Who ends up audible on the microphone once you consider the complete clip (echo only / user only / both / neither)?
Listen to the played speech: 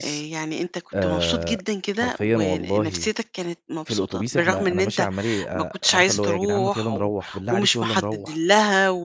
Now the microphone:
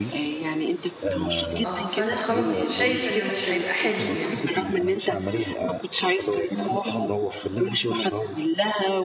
both